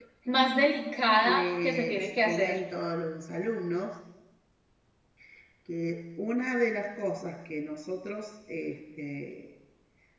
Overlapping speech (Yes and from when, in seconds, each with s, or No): Yes, from 1.2 s